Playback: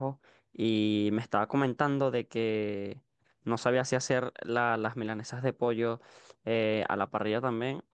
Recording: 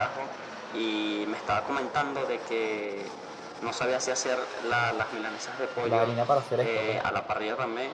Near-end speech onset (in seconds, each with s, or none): 5.8 s